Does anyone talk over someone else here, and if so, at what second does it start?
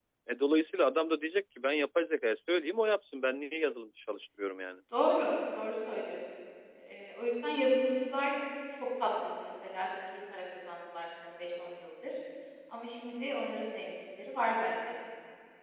none

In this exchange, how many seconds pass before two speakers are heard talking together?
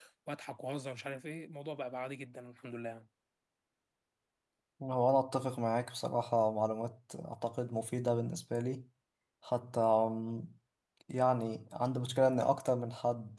none

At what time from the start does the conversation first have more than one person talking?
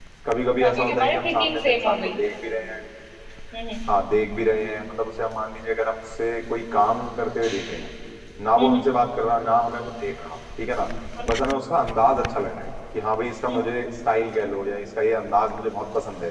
0.6 s

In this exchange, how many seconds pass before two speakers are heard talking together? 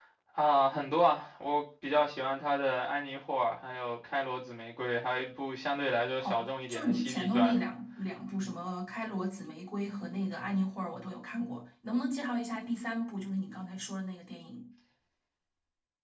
6.2 s

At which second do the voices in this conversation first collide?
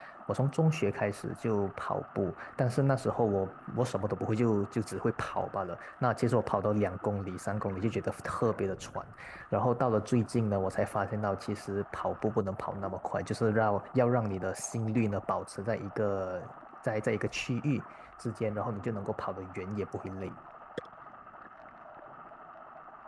none

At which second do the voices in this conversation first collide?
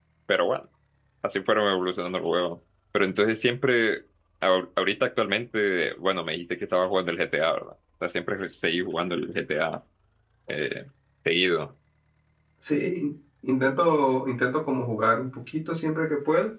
none

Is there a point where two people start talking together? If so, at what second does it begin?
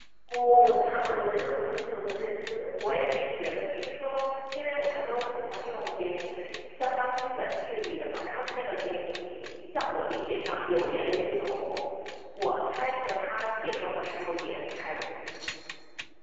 none

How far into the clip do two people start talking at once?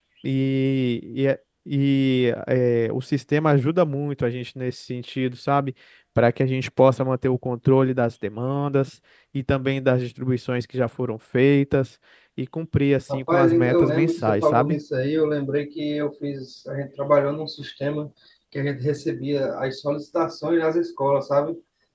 13.1 s

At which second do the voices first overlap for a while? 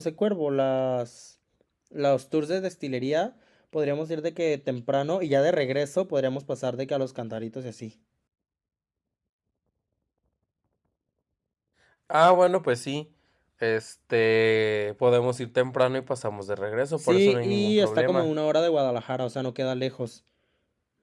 17.0 s

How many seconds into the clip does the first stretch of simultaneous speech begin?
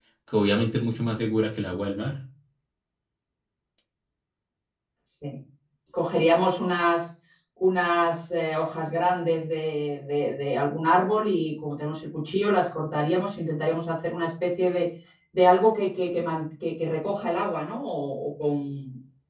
none

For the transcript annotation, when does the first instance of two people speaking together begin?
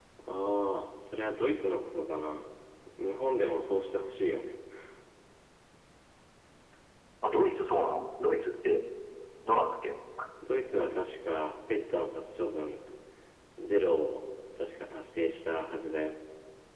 none

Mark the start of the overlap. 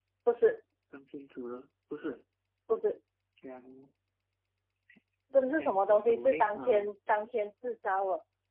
5.6 s

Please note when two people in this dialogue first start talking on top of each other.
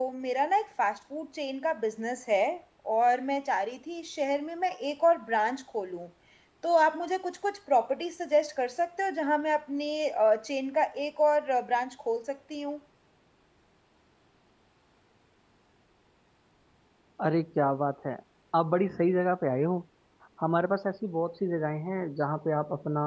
none

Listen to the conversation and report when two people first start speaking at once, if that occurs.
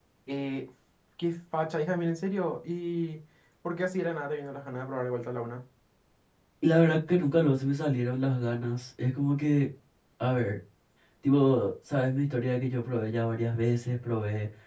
none

